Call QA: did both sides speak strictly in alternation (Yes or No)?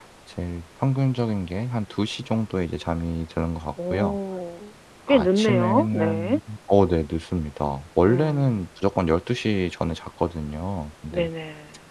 No